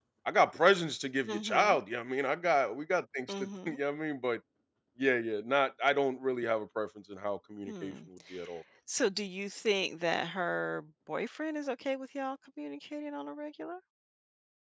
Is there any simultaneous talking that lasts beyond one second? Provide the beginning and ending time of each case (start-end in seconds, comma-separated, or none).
none